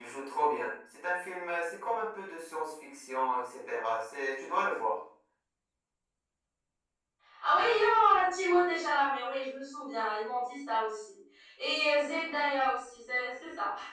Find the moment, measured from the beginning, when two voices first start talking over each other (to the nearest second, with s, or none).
none